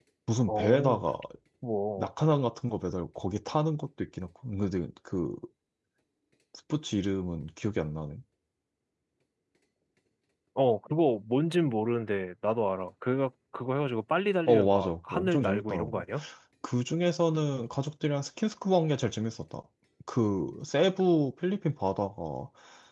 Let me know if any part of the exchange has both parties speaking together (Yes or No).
Yes